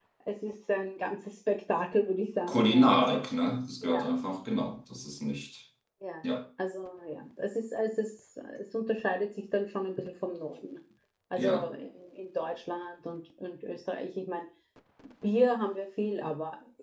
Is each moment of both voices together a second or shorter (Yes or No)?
Yes